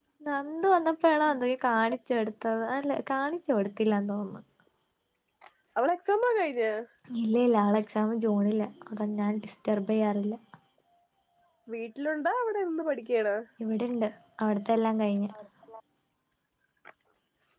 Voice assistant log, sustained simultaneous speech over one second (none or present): none